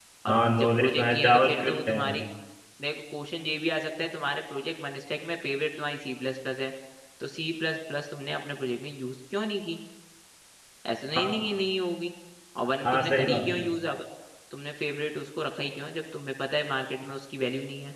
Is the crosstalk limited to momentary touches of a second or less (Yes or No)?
No